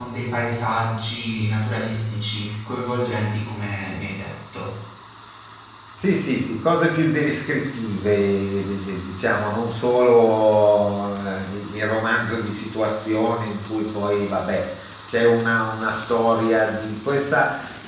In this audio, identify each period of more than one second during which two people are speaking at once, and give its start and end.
none

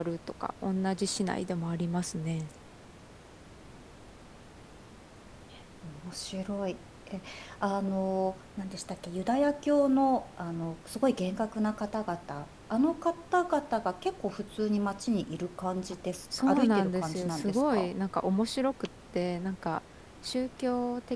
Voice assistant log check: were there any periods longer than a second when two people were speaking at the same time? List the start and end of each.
16.4-17.9

